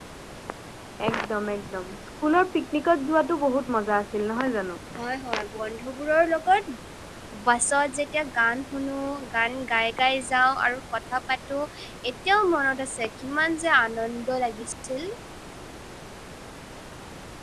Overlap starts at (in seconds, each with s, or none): none